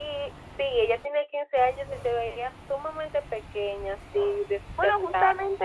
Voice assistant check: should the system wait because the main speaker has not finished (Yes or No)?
No